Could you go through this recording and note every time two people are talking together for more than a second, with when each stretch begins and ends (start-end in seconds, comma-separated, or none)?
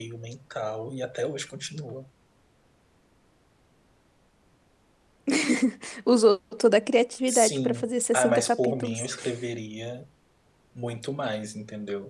7.3-9.1